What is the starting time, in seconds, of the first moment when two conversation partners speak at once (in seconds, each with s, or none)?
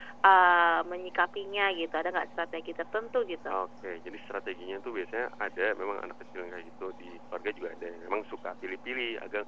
none